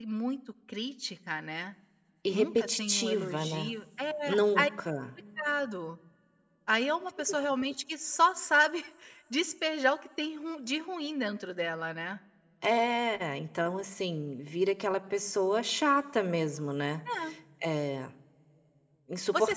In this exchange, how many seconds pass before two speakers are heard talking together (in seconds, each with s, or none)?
2.3 s